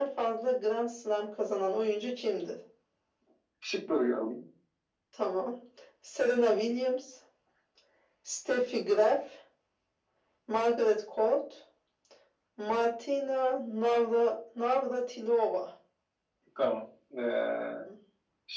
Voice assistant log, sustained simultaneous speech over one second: none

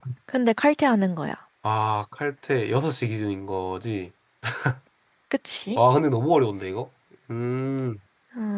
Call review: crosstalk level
none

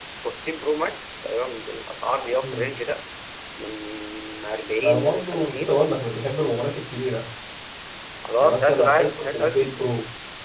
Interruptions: present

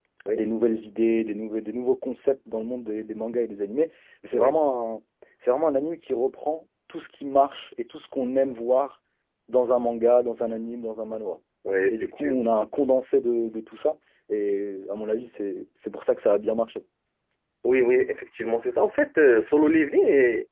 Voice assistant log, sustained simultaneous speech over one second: none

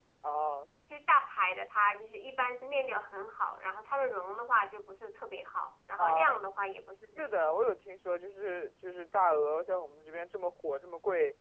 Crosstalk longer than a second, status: none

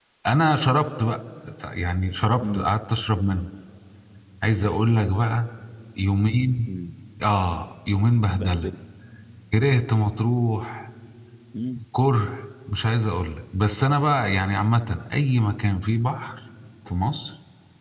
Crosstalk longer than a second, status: none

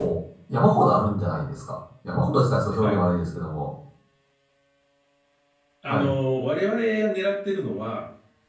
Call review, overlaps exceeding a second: none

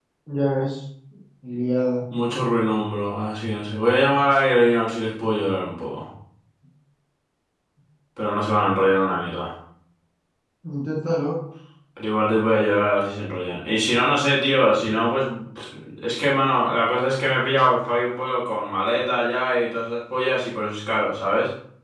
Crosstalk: none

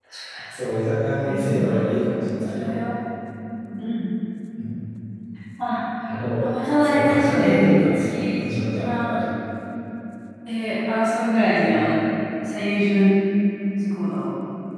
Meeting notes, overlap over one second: present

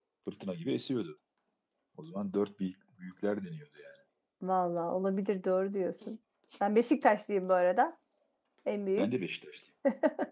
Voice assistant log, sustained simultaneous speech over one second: none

